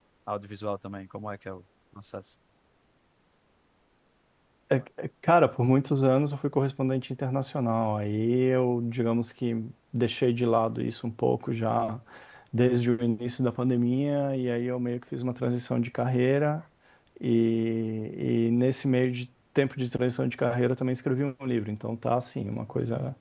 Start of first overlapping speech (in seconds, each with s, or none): none